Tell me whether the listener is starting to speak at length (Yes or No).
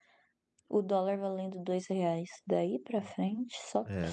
Yes